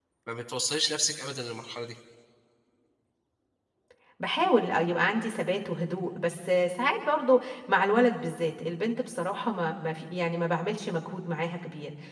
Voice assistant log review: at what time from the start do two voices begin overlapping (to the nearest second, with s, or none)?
none